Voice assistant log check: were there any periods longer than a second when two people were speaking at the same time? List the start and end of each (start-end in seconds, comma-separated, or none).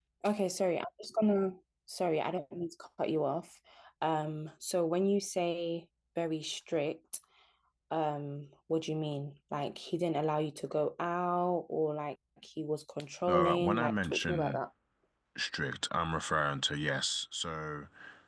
13.3-14.6